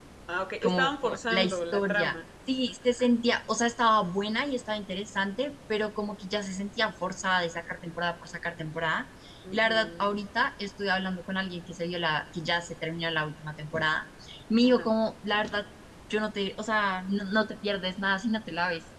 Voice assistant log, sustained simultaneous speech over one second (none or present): present